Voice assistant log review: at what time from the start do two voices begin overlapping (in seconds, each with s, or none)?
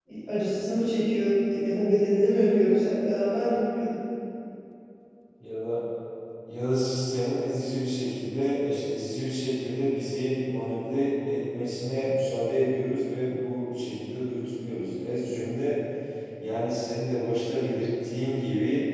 none